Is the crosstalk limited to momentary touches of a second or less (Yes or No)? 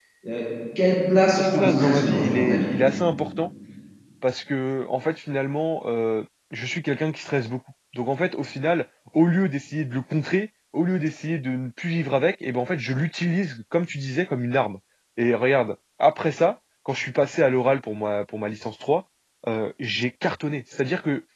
No